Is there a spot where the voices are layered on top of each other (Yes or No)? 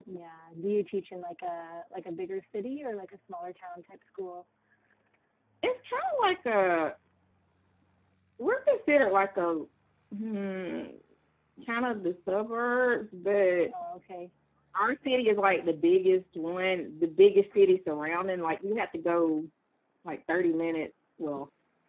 No